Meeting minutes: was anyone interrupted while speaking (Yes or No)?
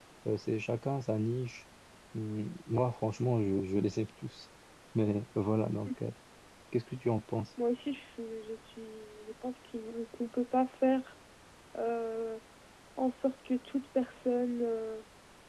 No